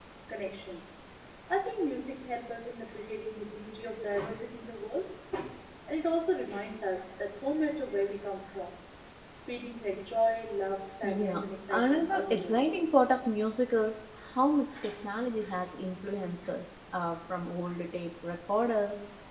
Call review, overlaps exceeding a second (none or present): present